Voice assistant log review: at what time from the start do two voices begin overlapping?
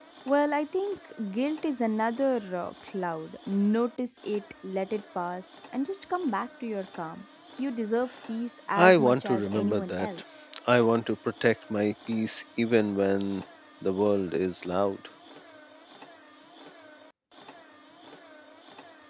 8.8 s

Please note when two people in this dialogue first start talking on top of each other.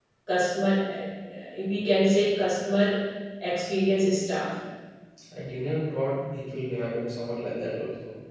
none

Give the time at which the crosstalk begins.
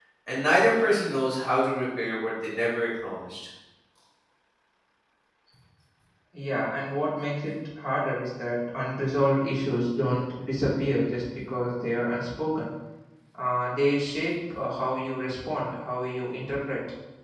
none

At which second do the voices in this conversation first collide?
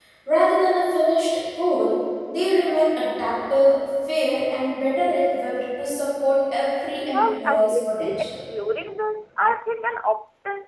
7.1 s

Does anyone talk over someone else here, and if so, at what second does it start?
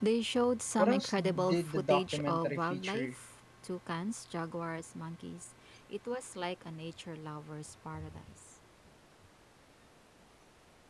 0.8 s

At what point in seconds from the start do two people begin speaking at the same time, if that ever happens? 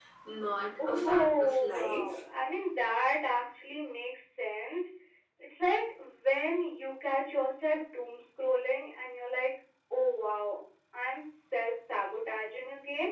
0.8 s

